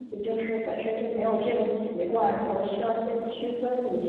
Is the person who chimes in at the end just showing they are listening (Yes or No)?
No